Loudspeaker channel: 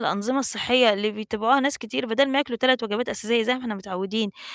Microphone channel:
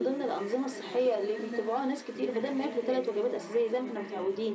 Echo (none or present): present